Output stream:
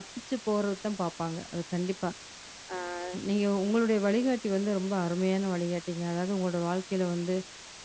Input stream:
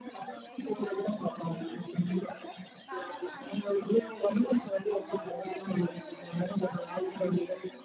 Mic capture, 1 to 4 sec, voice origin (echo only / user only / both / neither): both